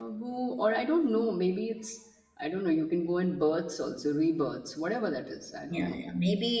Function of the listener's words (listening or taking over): taking over